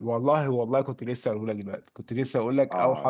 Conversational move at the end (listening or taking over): taking over